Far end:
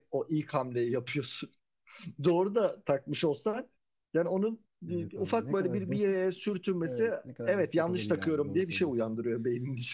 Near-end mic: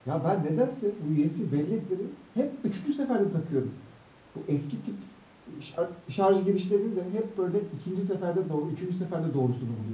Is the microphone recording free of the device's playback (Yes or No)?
Yes